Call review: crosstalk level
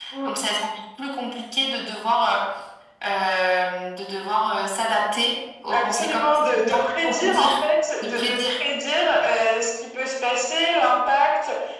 present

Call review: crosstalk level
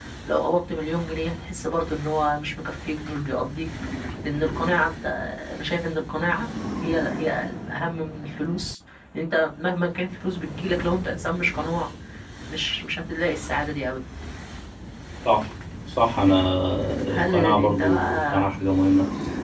present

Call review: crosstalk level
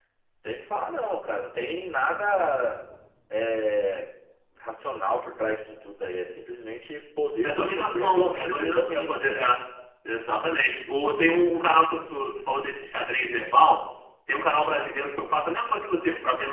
present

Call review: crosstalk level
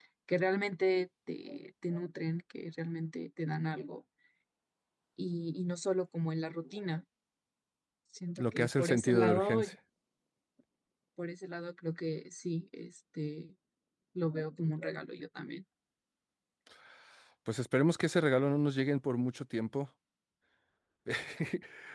present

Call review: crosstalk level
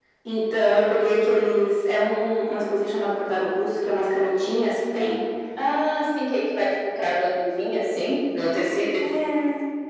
none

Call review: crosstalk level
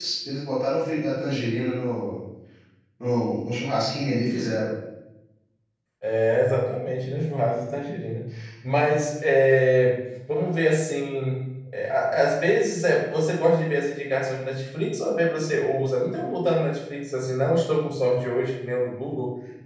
none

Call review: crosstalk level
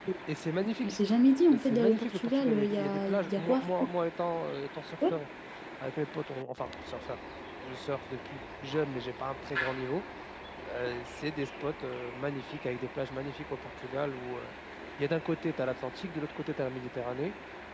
present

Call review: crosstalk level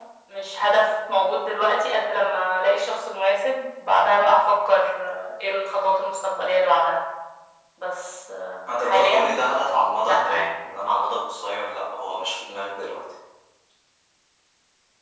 present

